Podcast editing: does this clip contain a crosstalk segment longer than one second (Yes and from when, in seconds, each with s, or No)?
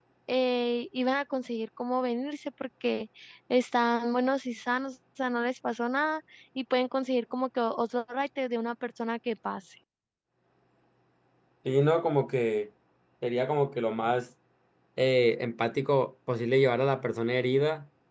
No